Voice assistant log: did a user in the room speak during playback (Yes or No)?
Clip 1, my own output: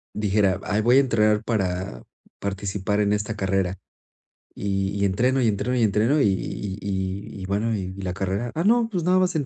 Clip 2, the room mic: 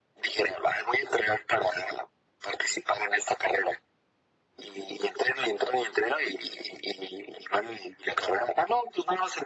No